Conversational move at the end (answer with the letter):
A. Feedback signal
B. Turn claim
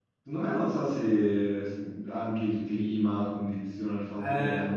B